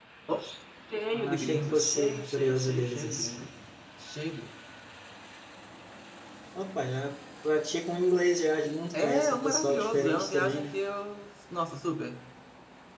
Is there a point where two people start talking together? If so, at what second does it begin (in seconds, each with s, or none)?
1.1 s